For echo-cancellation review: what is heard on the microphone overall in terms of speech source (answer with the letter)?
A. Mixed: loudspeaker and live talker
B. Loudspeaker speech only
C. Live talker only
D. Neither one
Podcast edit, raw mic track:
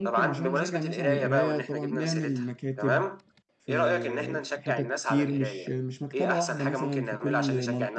A